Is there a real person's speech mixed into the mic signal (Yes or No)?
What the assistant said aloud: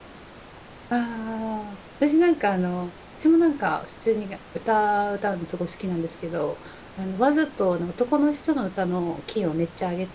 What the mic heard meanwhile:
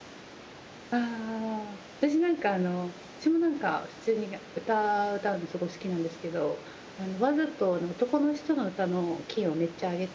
No